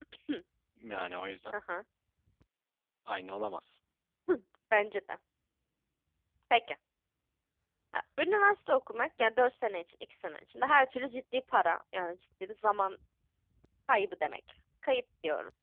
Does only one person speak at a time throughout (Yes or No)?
Yes